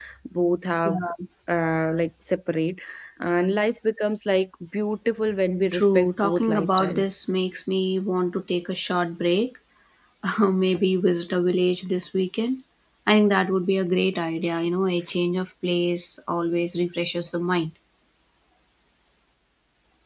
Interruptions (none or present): present